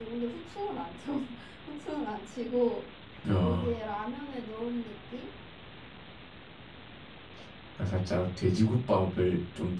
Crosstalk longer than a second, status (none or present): none